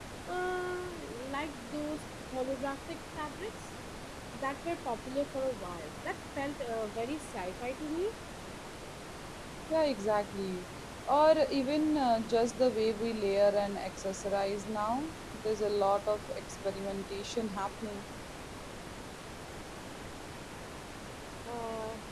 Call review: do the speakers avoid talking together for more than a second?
Yes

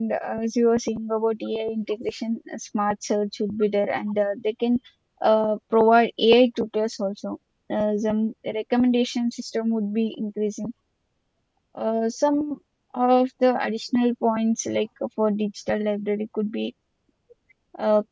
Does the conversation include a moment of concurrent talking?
No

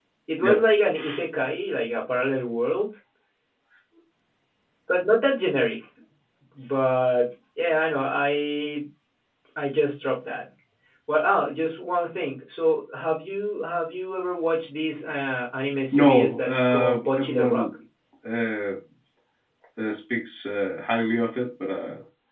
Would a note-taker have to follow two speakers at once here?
Yes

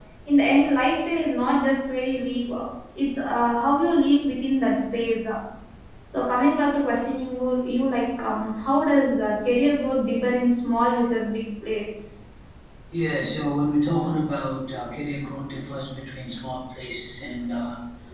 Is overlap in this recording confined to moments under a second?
Yes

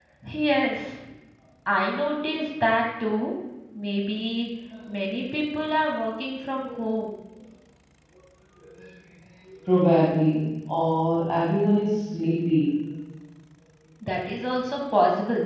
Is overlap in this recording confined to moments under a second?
Yes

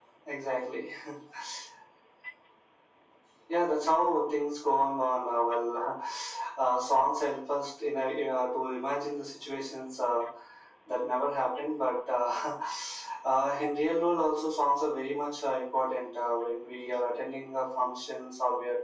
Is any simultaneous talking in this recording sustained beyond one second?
No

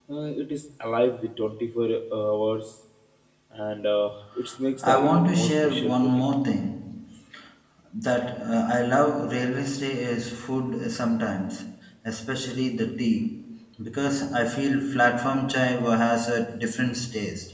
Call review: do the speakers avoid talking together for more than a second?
No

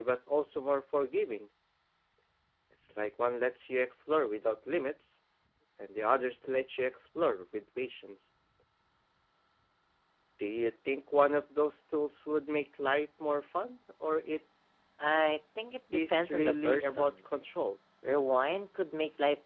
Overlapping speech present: Yes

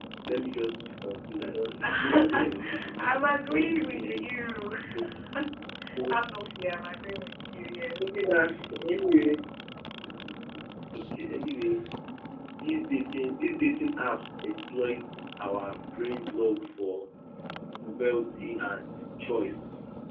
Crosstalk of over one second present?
Yes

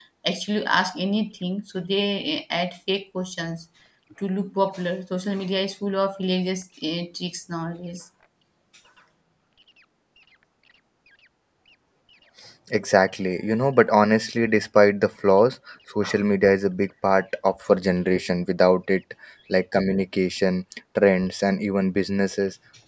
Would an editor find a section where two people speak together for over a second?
No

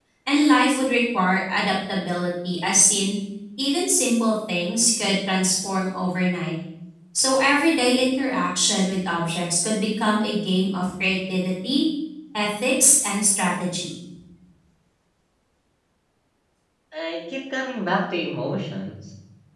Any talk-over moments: No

